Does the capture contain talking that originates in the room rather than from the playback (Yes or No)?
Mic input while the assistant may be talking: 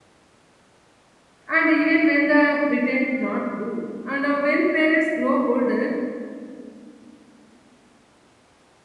Yes